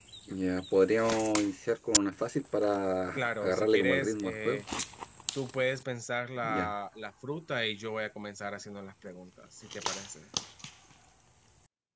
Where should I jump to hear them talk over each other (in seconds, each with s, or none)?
3.1 s